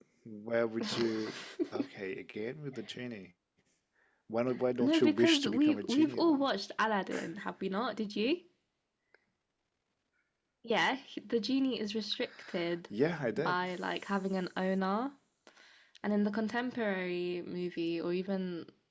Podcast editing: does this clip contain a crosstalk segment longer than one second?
Yes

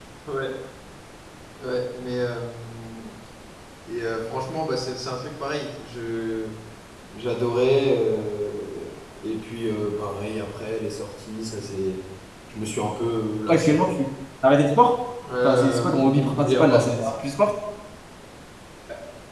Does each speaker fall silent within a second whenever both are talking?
No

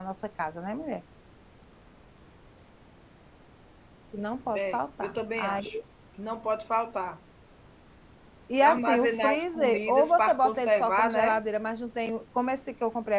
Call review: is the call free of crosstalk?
No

